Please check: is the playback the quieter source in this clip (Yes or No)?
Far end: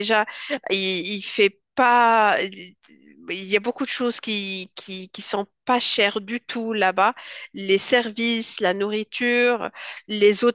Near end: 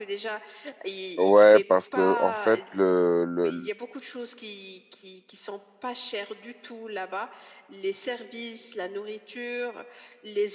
Yes